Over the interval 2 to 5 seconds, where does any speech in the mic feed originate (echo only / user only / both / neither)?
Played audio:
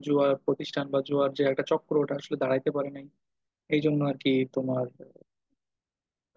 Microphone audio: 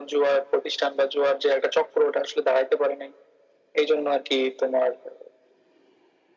echo only